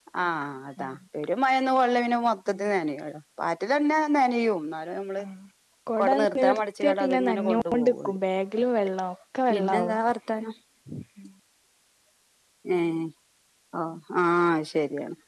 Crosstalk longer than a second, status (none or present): present